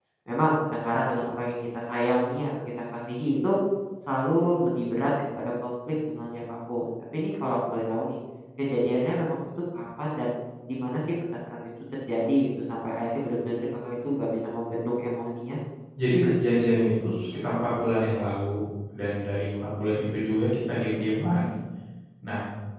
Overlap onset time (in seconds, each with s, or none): none